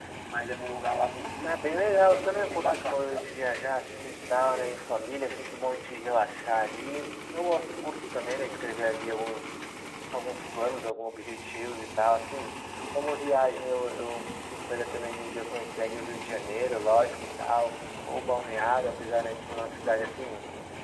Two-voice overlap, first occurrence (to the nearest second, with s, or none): 1 s